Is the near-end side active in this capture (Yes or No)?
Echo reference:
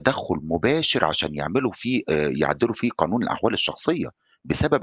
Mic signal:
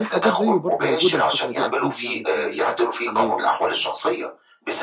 Yes